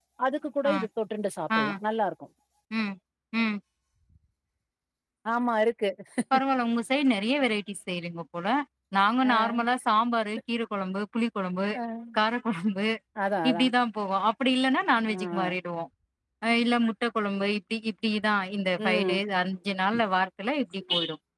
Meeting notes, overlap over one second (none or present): none